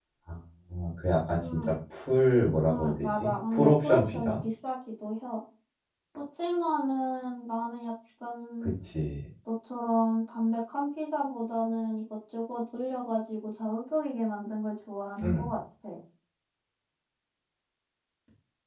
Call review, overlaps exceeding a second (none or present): present